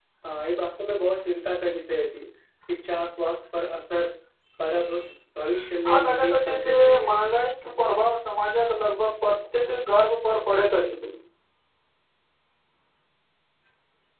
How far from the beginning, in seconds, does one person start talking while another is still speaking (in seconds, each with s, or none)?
5.9 s